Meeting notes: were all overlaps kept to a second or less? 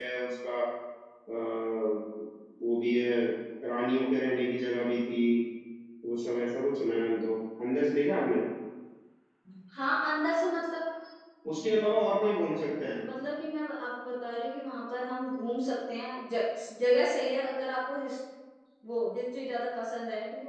Yes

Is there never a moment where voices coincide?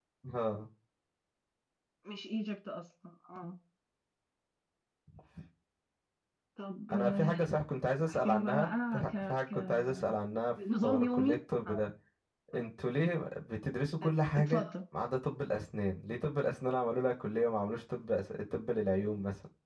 No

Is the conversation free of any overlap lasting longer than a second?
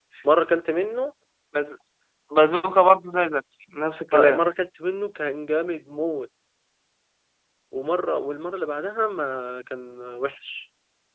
Yes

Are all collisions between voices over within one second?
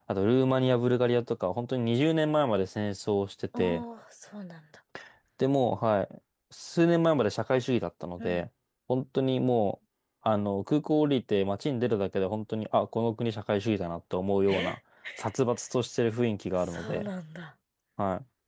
Yes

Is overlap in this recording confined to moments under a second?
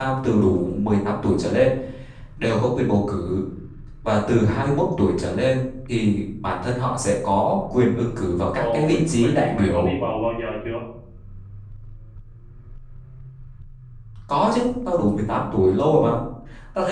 No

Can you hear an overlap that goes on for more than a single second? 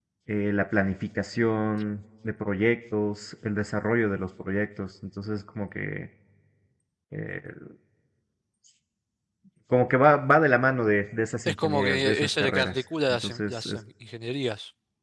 Yes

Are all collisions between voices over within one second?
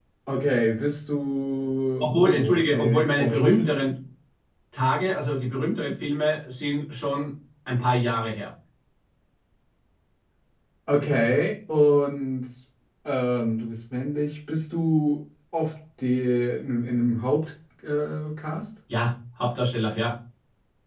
No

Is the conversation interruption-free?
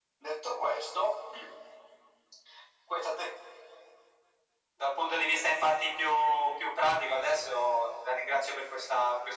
Yes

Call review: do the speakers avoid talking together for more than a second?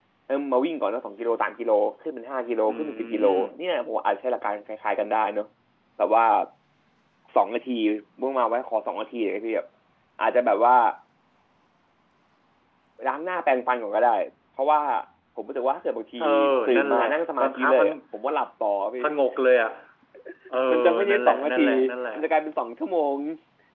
No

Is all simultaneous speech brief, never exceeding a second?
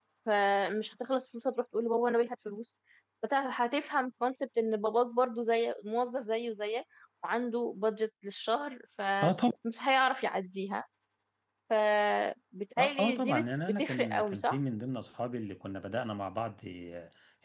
No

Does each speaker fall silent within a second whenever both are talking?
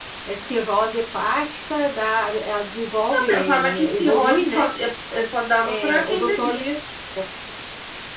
No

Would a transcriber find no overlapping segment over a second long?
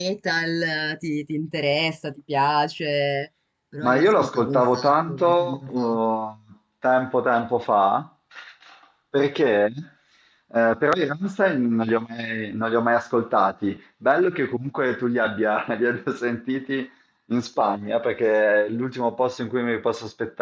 No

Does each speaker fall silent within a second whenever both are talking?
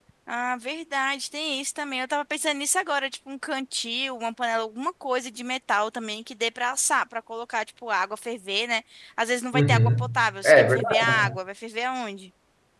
No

